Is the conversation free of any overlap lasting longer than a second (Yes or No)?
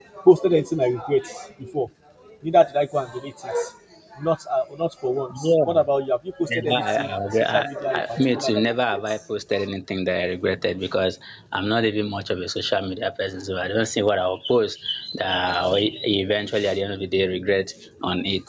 No